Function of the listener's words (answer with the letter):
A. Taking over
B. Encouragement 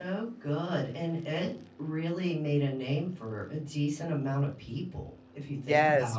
A